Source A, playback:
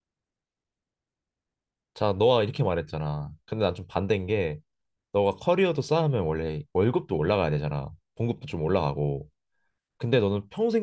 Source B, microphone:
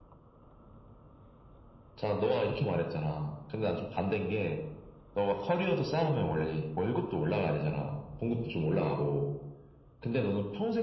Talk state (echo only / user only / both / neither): echo only